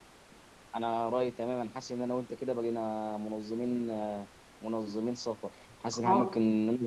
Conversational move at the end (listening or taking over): listening